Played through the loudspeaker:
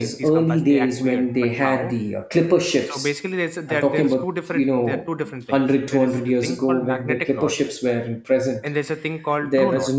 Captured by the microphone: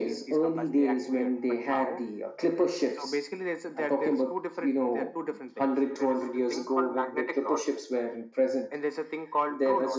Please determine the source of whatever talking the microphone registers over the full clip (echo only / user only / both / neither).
echo only